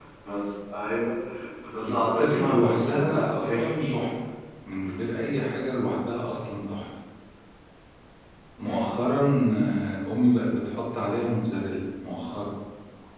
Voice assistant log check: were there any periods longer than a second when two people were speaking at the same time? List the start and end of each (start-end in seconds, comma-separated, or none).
1.8-4.0